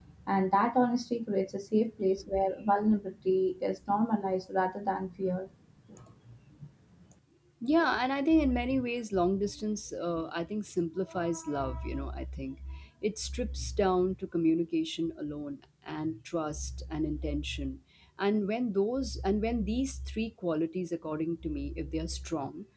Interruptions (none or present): none